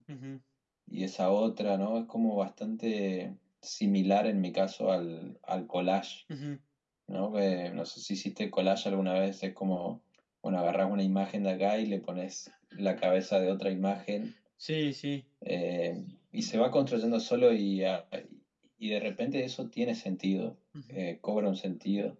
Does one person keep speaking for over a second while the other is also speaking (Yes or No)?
No